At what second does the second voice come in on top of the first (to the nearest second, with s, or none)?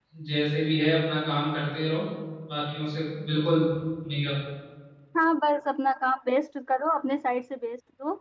none